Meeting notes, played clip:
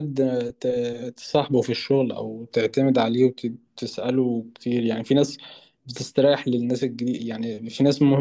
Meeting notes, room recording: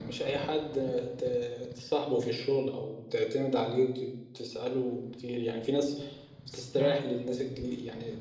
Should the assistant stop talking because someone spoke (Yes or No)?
Yes